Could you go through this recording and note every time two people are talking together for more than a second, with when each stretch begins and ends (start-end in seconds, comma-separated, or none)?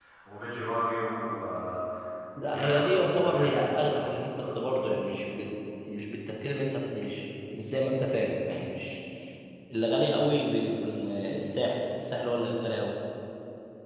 2.4-3.7